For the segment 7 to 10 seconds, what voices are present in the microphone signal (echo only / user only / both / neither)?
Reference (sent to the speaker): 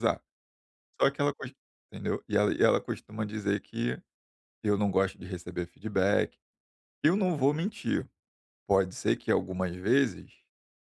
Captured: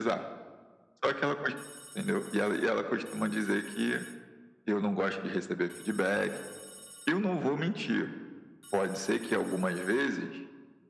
echo only